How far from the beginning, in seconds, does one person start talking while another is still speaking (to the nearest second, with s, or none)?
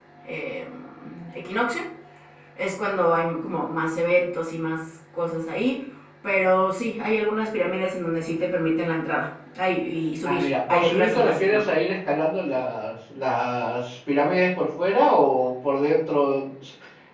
10 s